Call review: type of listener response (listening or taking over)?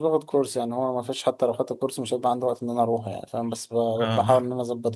listening